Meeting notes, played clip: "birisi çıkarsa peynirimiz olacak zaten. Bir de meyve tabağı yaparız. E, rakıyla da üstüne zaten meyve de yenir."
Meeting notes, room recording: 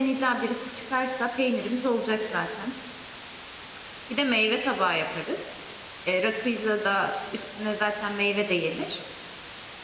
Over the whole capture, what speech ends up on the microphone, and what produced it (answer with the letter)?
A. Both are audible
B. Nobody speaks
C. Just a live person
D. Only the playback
D